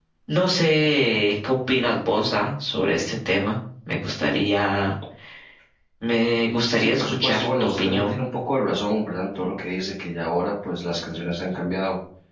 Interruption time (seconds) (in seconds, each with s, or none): 6.8 s